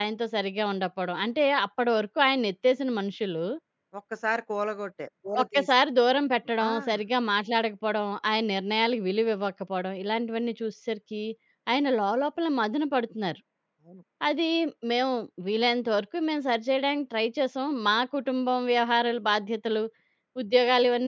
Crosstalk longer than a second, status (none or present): none